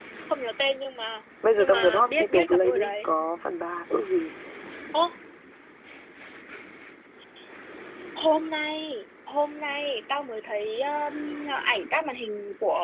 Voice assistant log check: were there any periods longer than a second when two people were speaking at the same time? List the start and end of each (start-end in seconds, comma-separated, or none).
1.6-3.1